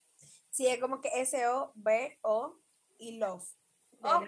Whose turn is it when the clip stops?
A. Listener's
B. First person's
A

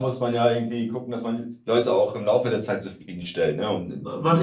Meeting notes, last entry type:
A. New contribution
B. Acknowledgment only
A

